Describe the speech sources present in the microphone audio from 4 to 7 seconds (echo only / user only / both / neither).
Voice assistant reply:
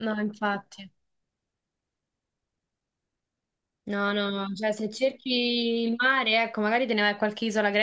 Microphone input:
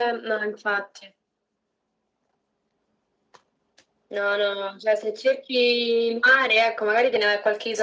echo only